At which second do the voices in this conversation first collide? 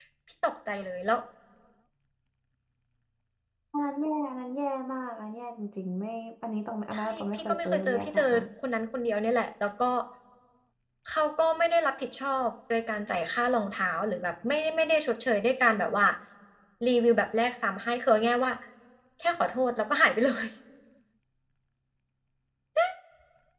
6.9 s

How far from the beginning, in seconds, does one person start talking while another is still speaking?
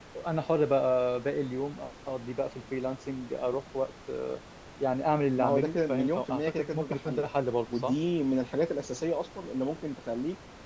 5.4 s

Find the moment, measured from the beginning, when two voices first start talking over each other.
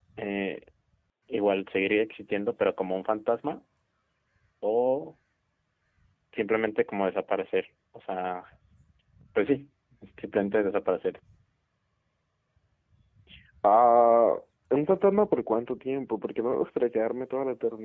none

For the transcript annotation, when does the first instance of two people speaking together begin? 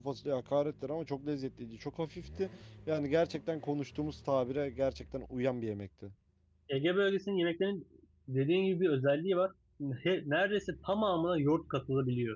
none

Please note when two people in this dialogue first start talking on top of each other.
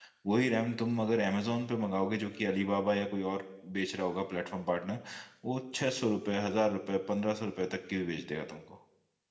none

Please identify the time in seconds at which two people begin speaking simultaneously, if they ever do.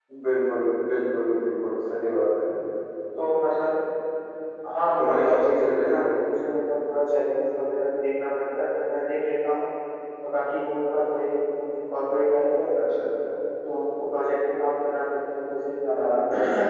4.8 s

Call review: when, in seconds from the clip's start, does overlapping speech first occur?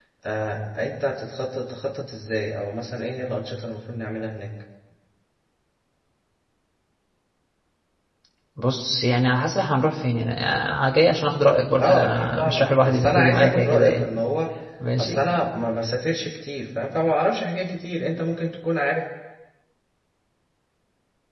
11.8 s

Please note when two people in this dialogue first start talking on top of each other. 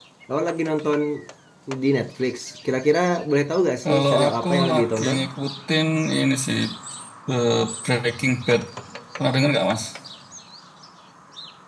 3.9 s

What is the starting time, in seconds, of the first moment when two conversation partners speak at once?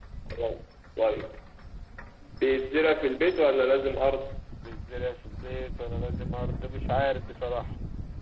none

